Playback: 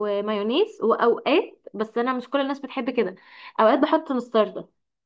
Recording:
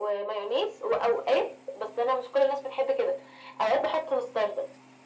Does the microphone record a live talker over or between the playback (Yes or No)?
No